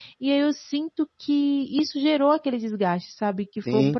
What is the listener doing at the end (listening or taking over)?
taking over